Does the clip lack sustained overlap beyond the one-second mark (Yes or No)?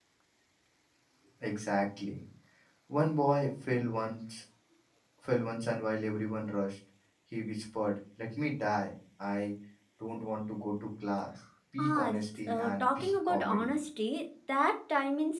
No